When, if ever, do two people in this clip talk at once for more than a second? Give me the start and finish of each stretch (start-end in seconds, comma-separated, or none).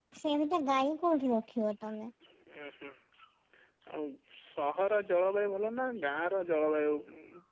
none